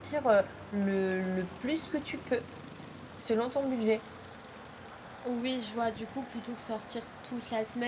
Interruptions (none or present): none